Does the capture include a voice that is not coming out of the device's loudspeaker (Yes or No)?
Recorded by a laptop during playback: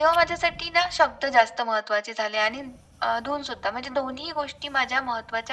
No